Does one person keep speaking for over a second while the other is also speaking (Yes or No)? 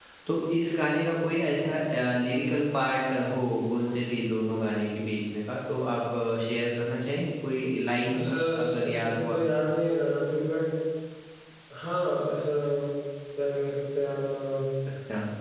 Yes